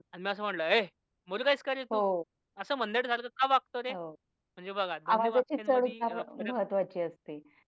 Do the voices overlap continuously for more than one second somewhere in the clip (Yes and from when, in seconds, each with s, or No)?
Yes, from 5.1 s